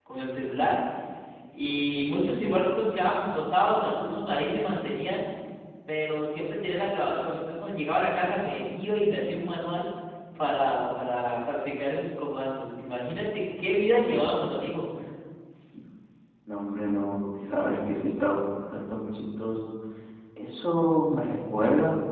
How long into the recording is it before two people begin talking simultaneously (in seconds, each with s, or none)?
none